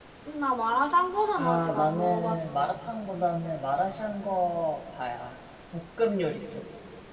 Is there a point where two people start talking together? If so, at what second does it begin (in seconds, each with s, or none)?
1.4 s